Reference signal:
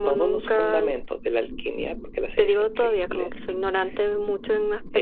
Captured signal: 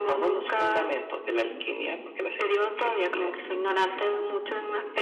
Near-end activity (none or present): present